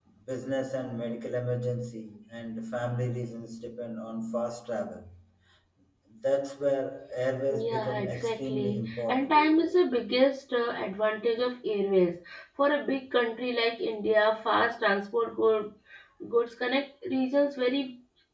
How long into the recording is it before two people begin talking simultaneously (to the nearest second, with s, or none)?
8 s